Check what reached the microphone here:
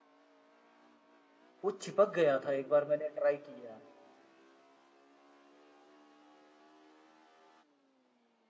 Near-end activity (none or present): present